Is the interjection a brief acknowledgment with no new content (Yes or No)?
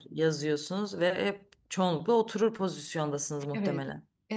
No